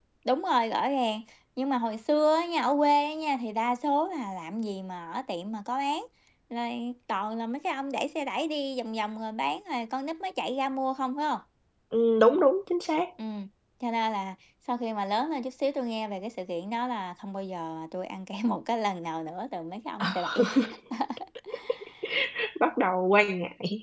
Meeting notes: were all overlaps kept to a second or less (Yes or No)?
Yes